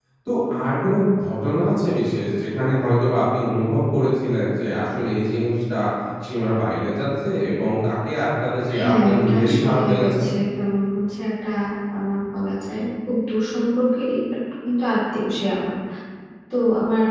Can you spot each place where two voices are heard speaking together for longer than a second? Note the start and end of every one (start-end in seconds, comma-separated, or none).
8.8-10.2